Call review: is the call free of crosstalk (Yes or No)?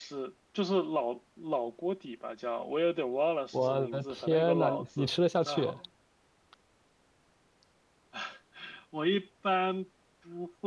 No